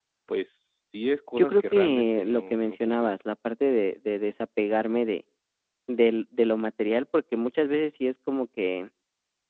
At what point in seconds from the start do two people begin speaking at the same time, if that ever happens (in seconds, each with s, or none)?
1.4 s